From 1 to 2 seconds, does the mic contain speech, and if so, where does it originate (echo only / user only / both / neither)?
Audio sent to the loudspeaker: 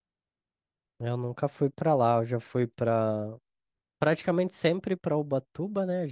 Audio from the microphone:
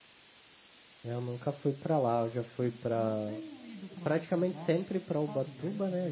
echo only